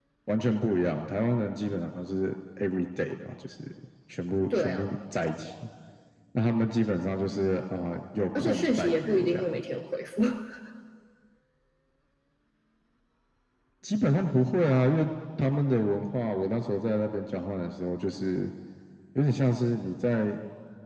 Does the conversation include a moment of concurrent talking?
Yes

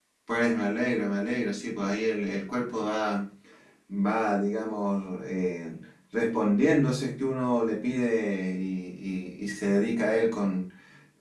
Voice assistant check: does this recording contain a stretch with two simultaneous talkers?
No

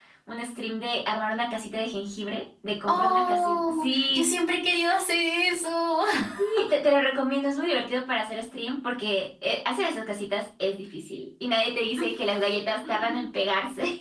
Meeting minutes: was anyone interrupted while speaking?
Yes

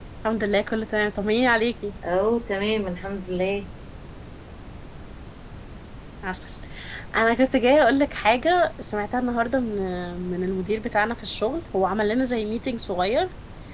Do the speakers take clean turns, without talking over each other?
Yes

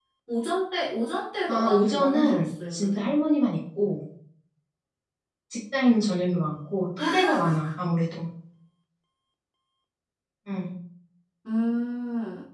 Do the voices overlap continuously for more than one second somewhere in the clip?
Yes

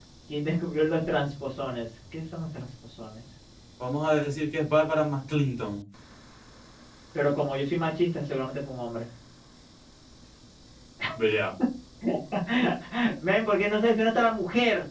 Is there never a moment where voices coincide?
Yes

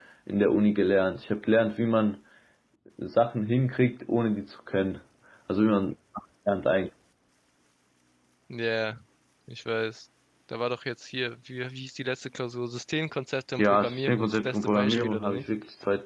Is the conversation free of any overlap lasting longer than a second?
No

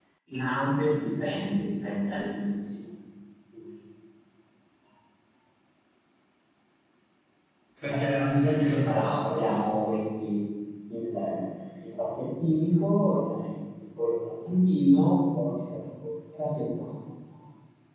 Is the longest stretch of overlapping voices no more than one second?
No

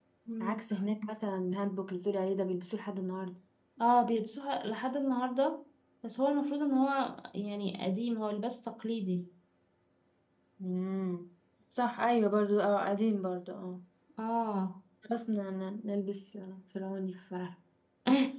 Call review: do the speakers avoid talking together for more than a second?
Yes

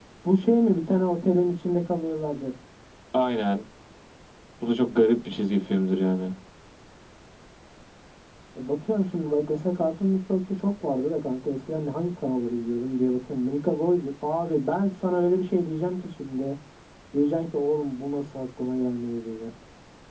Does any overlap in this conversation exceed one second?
No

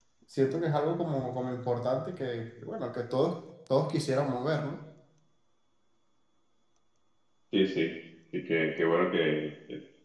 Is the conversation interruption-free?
Yes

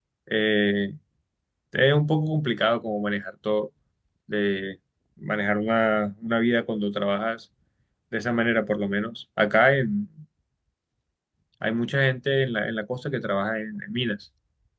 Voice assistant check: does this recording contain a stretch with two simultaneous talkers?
No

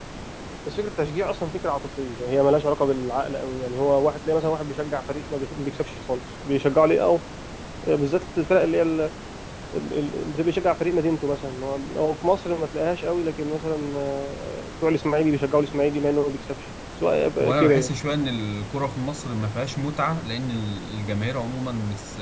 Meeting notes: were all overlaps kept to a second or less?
Yes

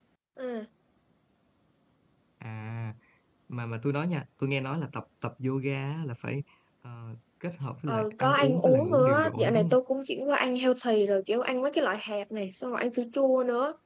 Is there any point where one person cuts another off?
Yes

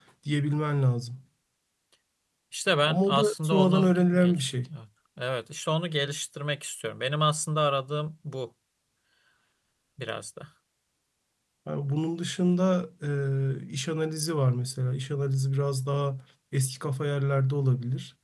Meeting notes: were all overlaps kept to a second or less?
No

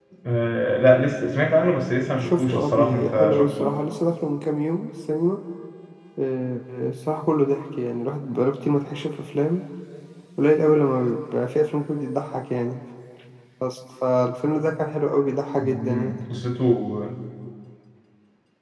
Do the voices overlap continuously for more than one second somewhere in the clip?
Yes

